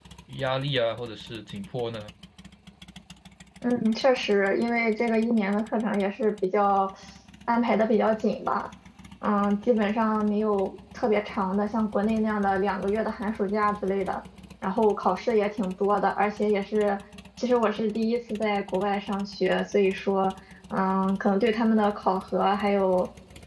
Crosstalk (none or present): none